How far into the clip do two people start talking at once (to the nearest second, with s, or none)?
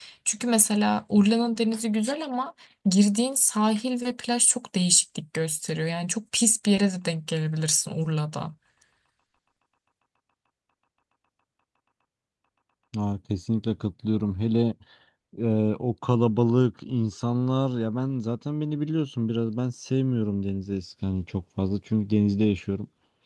none